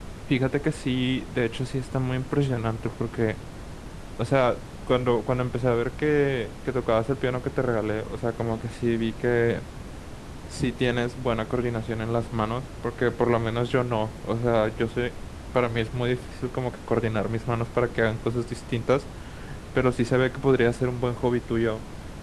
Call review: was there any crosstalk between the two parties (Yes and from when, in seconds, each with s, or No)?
No